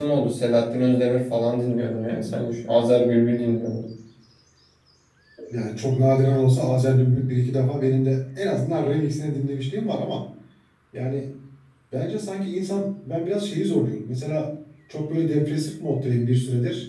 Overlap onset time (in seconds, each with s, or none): none